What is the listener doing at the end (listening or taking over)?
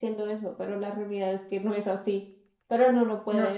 listening